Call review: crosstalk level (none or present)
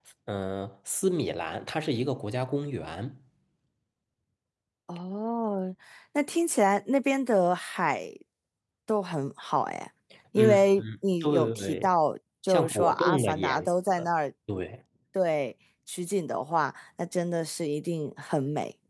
present